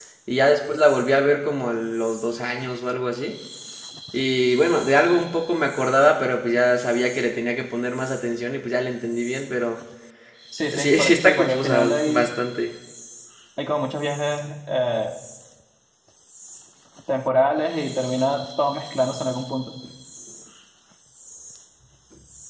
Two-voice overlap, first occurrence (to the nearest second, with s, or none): 11 s